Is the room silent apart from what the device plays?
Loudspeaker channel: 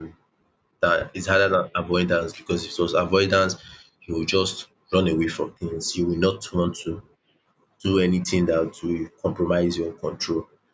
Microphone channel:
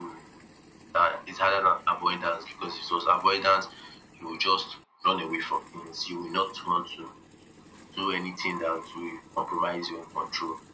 Yes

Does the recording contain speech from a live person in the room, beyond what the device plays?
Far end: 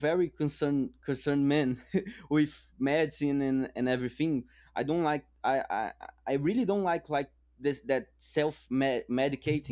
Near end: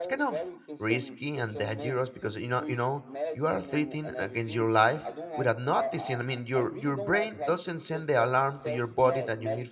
Yes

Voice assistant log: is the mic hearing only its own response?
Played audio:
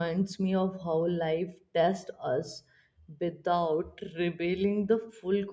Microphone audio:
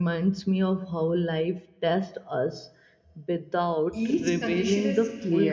No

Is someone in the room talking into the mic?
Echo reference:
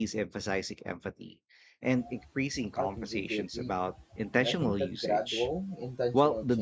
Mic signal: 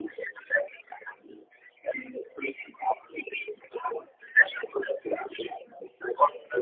No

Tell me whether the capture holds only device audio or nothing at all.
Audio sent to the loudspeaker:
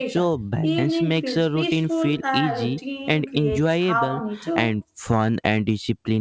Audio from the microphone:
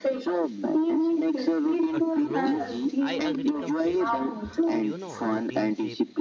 No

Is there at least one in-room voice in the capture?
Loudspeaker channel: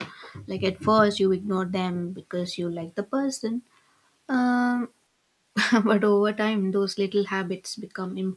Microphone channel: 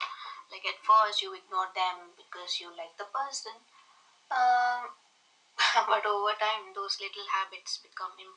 No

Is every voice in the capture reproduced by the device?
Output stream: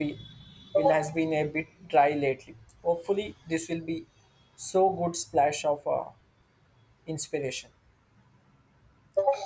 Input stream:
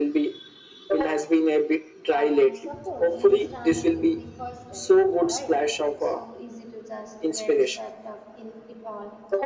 No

